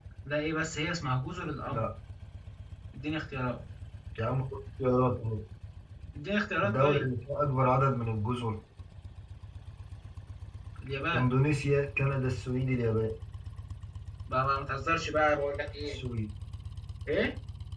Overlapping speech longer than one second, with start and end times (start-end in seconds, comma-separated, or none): none